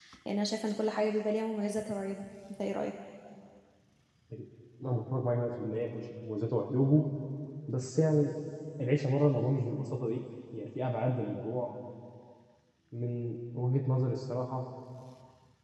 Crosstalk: none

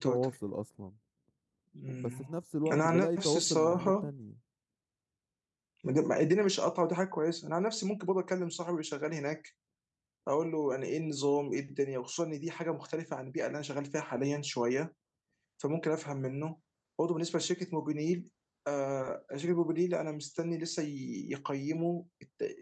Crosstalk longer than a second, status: present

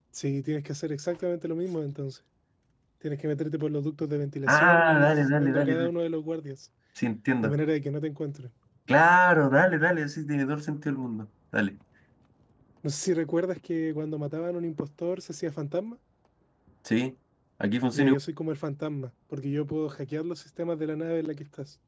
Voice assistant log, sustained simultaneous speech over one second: present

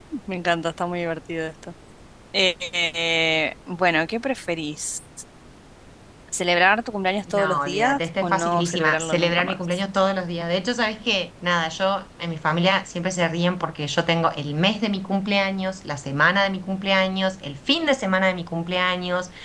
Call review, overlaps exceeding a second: present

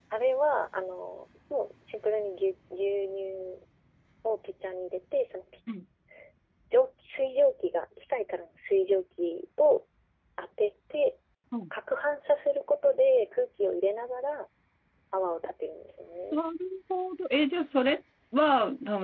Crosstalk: none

